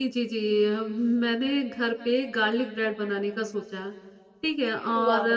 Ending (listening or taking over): listening